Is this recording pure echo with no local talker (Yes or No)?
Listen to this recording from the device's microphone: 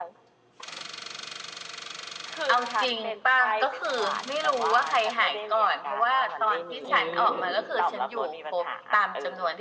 No